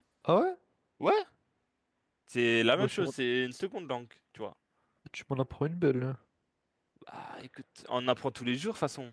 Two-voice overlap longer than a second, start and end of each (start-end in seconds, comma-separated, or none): none